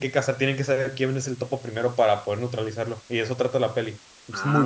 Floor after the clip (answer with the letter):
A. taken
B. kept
A